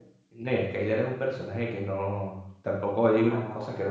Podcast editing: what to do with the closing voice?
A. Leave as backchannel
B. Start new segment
A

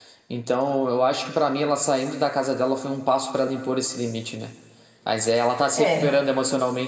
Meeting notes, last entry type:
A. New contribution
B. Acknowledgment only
B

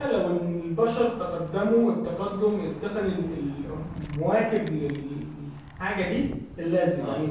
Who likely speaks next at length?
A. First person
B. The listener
A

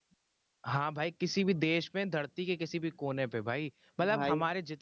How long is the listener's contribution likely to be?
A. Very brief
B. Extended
A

